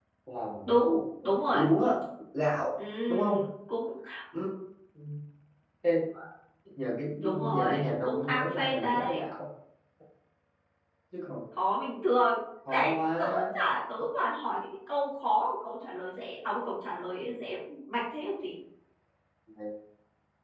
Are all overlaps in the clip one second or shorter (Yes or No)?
No